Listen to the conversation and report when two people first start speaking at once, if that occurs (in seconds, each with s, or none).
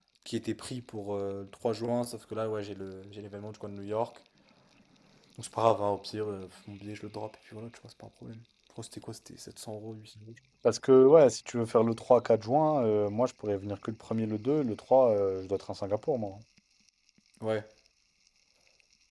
none